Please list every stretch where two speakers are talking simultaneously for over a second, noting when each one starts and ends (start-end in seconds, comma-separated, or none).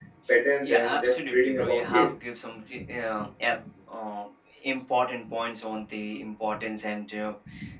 0.6-2.1